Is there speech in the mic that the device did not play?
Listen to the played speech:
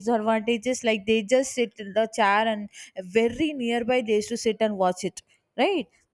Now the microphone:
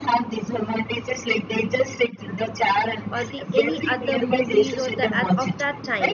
Yes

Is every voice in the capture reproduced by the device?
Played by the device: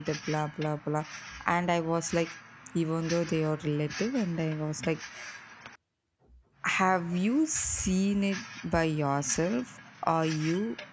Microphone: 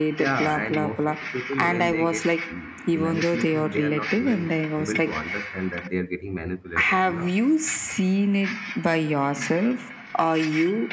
No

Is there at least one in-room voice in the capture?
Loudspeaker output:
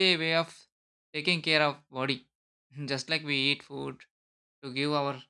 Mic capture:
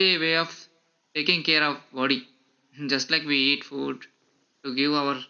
No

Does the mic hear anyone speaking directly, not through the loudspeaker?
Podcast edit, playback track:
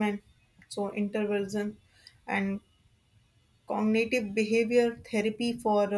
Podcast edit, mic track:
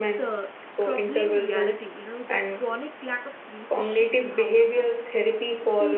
Yes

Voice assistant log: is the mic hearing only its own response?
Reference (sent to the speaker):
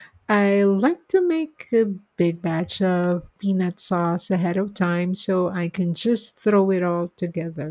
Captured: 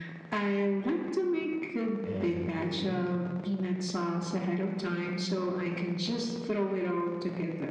No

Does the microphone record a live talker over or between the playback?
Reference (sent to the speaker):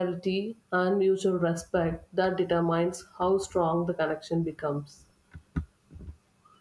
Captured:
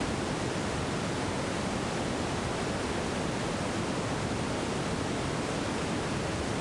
No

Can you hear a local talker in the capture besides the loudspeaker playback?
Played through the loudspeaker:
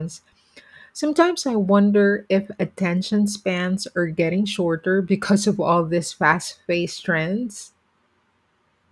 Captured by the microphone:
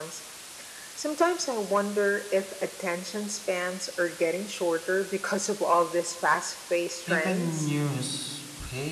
Yes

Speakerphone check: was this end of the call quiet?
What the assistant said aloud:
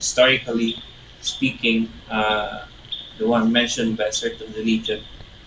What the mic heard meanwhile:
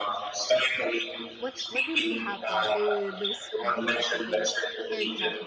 No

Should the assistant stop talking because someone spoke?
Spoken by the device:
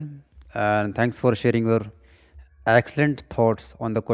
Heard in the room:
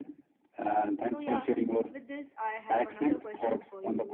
Yes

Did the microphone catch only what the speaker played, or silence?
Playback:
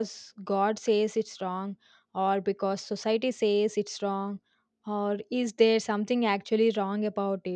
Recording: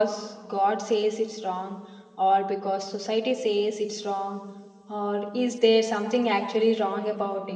Yes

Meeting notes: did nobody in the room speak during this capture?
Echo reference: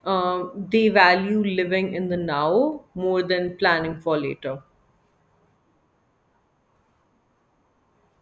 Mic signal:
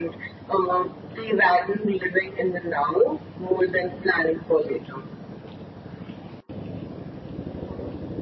Yes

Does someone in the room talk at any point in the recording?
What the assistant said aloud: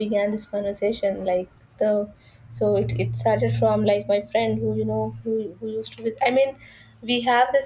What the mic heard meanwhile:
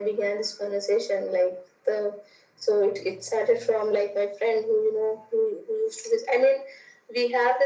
No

